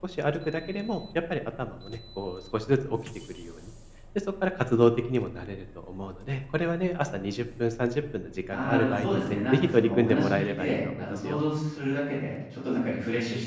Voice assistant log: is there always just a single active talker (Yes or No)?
No